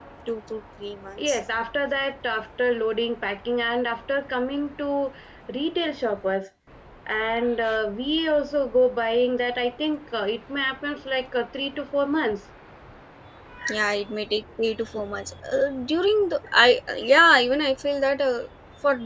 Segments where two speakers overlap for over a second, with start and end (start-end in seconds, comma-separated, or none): none